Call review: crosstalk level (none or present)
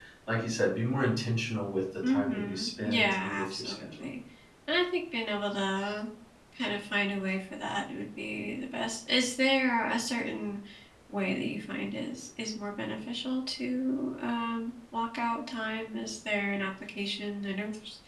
present